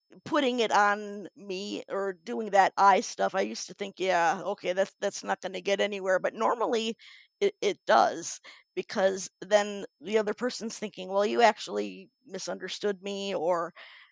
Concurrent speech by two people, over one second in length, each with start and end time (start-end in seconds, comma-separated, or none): none